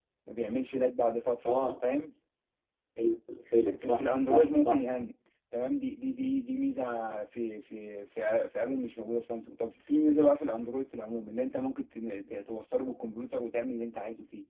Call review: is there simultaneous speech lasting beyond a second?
Yes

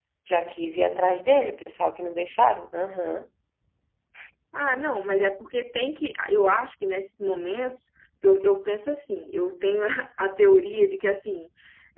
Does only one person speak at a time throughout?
Yes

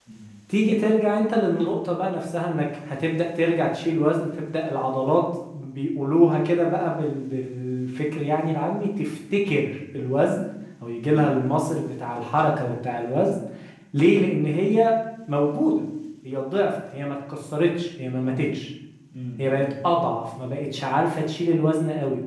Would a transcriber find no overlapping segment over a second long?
Yes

